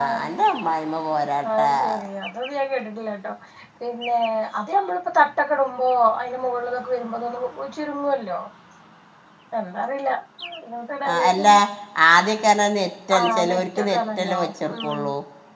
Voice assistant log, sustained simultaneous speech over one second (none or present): present